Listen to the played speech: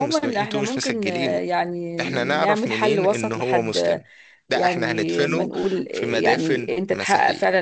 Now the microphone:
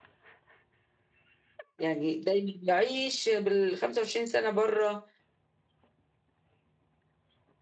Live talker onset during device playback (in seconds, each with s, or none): 1.8 s